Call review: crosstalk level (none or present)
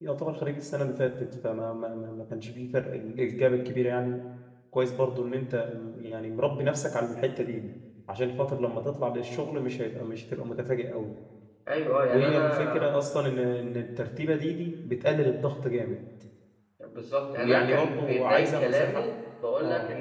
present